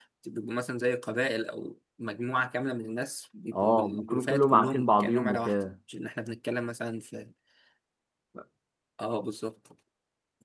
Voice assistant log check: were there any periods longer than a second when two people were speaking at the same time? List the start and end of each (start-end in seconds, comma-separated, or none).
3.5-5.5